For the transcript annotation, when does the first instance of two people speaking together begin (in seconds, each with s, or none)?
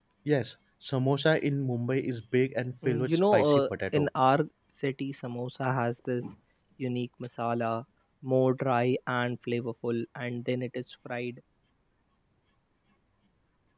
2.8 s